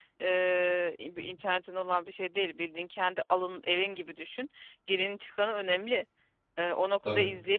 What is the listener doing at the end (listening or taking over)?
listening